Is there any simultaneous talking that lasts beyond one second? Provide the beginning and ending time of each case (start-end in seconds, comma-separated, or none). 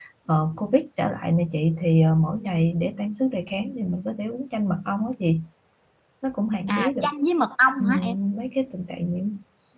none